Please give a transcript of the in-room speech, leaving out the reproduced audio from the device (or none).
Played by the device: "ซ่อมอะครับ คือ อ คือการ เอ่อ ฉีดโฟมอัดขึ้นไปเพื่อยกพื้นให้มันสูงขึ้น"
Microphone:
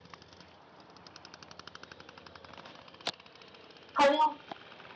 เขาเรียก